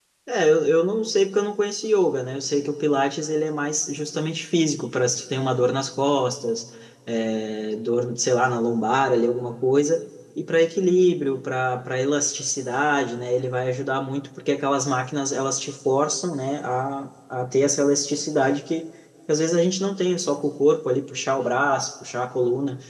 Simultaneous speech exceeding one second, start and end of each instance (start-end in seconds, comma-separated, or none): none